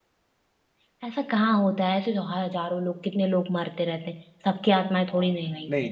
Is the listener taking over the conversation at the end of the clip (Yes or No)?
Yes